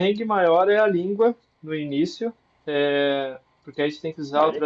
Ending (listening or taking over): listening